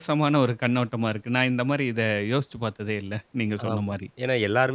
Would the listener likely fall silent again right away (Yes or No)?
No